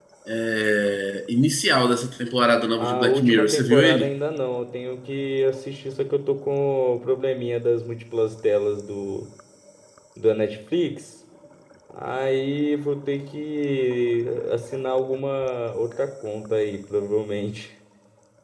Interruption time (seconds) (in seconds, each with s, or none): 2.8 s